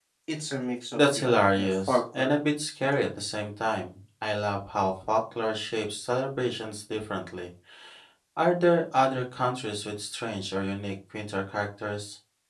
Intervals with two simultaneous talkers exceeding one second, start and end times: 0.9-2.3

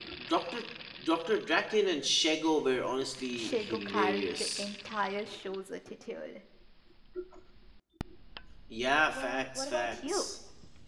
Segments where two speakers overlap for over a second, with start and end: 3.4-4.7, 9.1-10.3

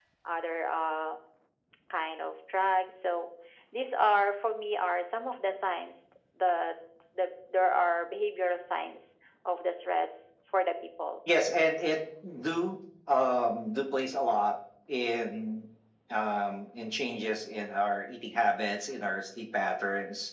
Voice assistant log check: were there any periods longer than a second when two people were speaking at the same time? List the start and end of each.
none

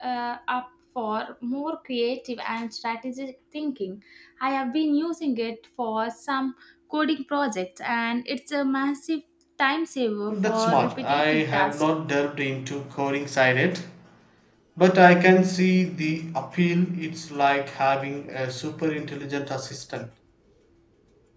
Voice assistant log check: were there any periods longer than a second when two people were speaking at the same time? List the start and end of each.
10.3-11.8

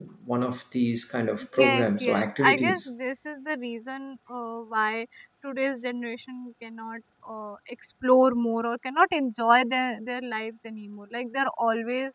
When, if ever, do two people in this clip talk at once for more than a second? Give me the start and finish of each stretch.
1.6-2.9

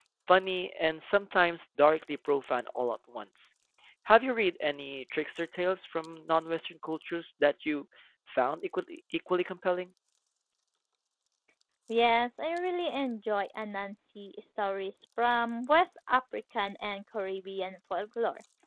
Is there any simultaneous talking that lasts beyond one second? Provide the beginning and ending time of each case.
none

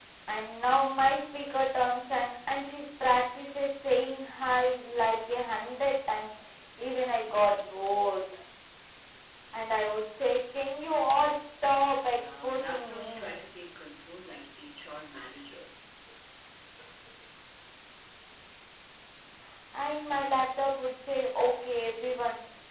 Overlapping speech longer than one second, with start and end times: 12.1-13.5

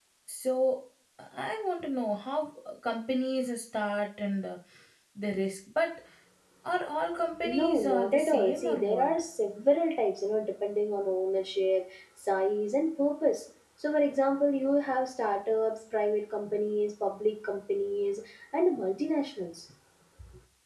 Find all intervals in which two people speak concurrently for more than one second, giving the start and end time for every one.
7.4-9.1

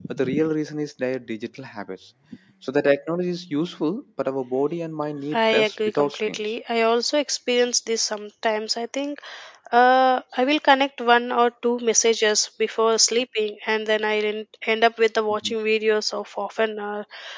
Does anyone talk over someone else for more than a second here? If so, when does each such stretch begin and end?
5.3-6.5

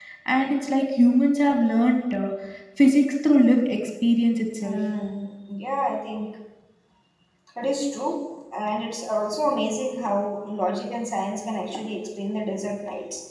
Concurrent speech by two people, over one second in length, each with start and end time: none

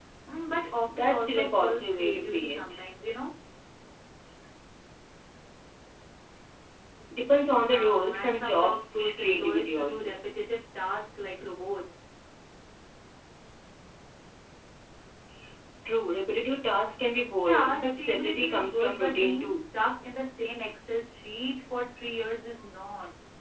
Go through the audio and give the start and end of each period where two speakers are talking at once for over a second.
0.9-2.9, 7.7-10.1, 17.4-19.6

